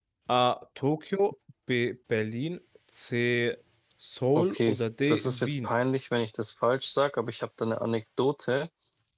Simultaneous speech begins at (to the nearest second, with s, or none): 4 s